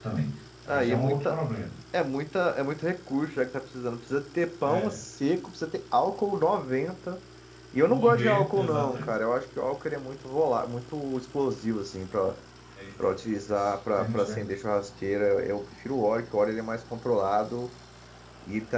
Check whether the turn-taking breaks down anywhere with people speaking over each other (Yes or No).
Yes